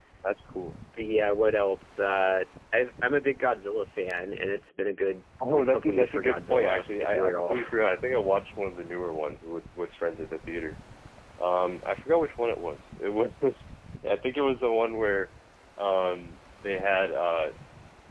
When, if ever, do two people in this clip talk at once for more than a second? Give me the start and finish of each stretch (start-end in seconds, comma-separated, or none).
5.5-7.6